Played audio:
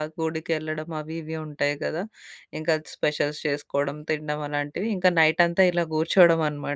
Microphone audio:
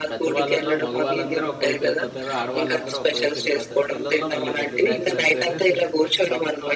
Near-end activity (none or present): present